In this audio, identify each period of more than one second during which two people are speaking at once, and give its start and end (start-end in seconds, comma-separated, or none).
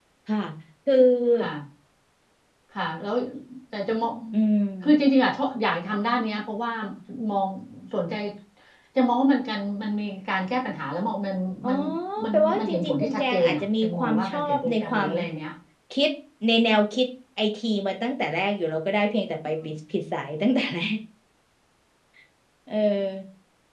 12.3-15.1